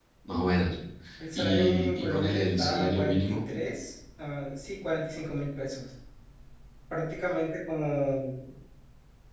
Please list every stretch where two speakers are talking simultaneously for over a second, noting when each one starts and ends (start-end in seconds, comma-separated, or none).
1.4-3.4